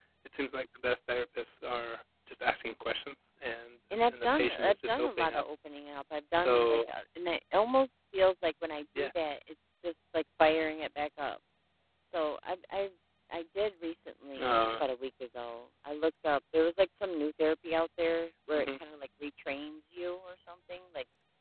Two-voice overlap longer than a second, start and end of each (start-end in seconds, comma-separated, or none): 4.0-5.4